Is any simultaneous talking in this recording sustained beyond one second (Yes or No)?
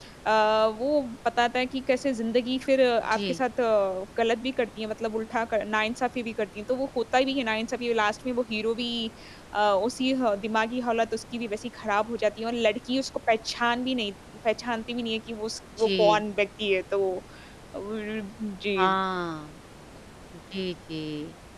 No